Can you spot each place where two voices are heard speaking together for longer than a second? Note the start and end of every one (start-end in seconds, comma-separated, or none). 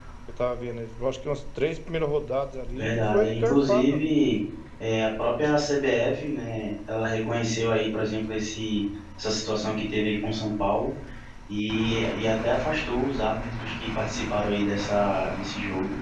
2.7-4.1